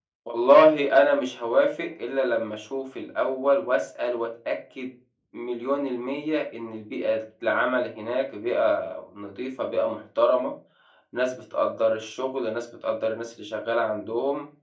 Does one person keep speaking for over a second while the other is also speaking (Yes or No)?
No